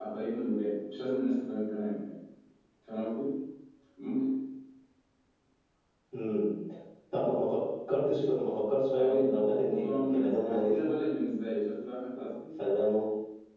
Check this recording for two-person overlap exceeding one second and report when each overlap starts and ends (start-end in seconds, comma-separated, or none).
9.0-10.9